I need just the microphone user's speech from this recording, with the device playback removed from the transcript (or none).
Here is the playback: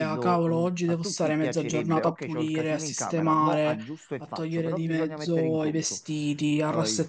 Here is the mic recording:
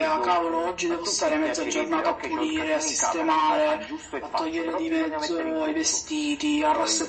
none